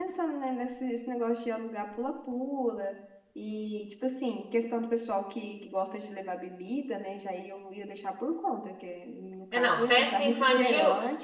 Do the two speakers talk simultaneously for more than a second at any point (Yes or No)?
Yes